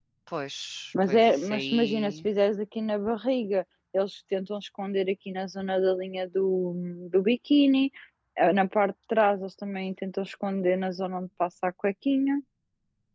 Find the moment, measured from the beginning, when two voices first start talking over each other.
1.0 s

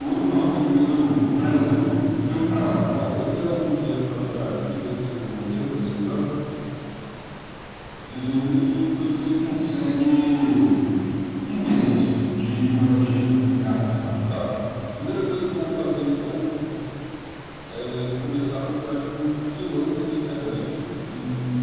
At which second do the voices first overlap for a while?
none

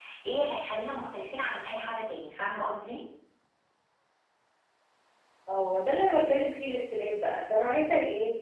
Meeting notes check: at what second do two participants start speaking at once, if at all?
none

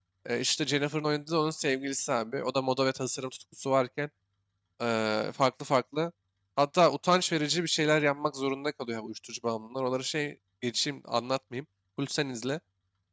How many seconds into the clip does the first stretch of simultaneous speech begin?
none

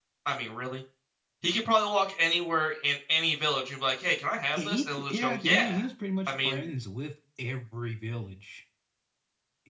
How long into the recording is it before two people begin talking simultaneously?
4.5 s

